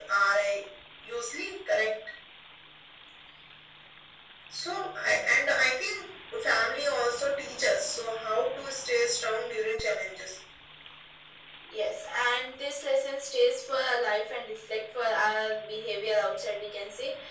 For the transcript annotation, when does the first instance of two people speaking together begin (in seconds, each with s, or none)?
none